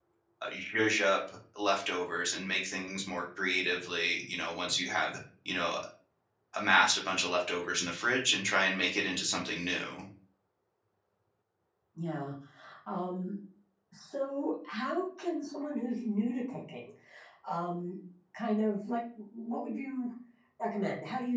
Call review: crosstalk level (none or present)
none